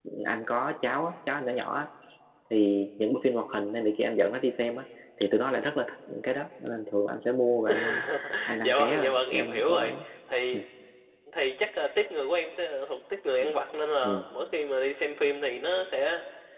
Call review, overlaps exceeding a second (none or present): present